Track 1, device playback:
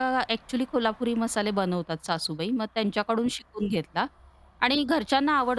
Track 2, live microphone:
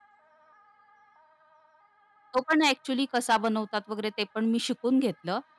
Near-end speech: present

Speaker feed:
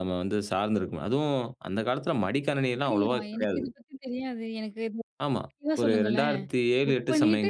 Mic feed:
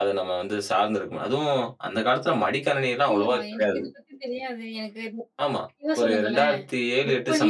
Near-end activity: none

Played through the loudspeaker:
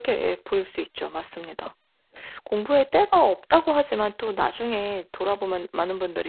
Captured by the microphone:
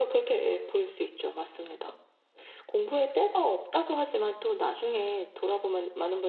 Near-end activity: none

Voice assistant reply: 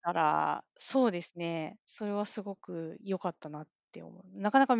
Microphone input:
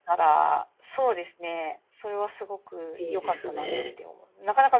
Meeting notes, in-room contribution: present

